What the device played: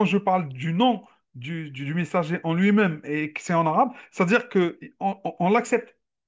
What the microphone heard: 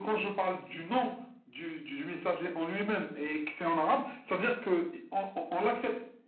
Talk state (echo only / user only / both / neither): echo only